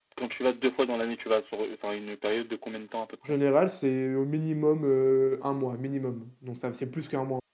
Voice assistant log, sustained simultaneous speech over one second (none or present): none